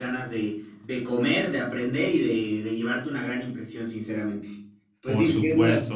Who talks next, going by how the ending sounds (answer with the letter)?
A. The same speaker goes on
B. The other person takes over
B